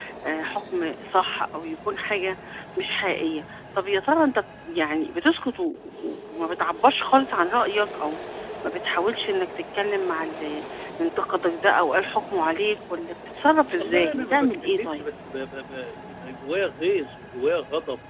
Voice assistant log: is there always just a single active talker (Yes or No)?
No